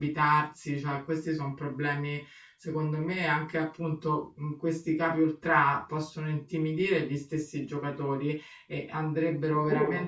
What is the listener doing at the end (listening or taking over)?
listening